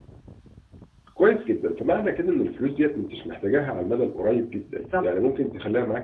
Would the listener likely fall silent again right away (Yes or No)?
Yes